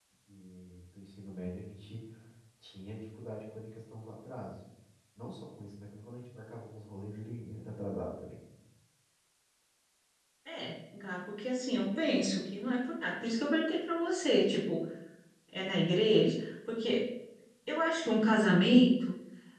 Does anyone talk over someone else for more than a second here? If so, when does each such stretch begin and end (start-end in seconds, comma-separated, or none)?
none